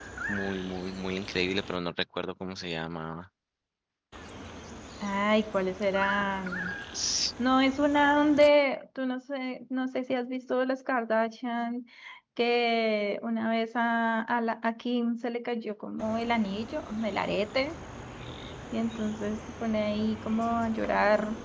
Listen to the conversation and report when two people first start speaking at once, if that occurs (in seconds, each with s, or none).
none